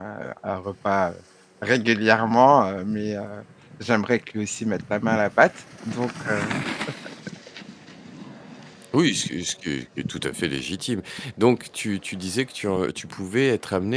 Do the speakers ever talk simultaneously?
No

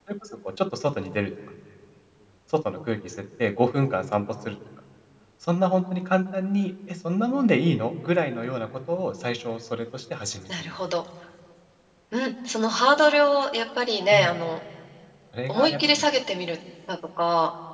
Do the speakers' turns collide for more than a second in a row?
No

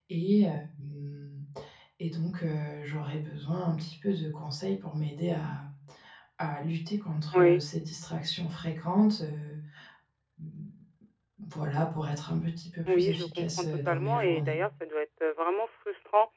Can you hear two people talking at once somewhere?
Yes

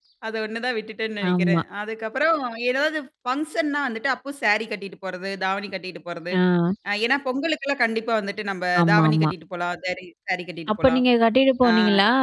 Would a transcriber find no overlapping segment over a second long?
Yes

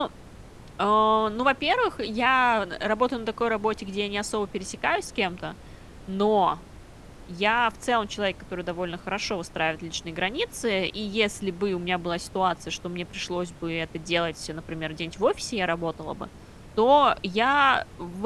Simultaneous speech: No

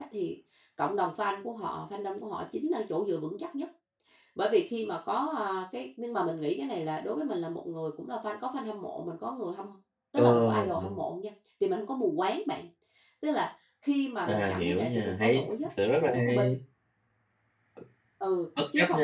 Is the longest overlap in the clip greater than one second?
Yes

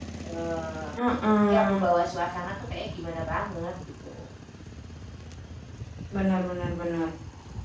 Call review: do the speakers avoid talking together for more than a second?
Yes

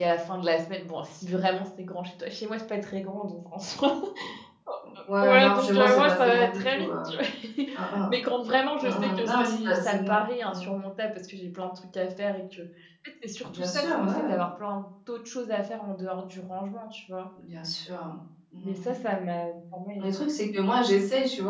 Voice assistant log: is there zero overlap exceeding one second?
No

